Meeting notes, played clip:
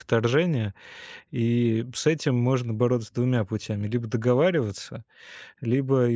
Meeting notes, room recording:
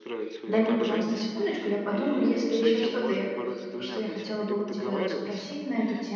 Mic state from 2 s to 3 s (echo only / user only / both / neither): both